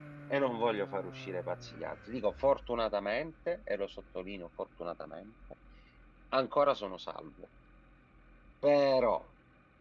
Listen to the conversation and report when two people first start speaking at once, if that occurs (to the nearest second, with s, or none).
none